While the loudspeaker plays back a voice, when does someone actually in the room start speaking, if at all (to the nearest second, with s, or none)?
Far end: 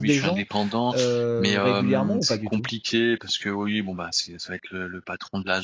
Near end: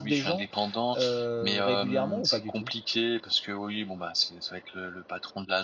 none